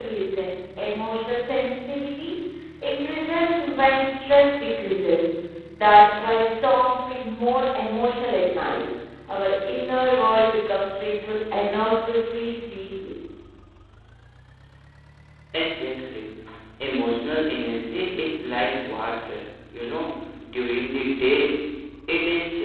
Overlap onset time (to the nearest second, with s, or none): none